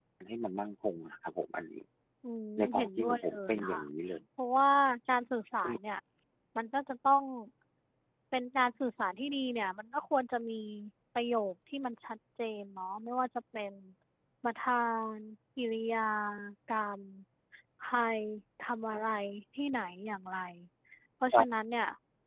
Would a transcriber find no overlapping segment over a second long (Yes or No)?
No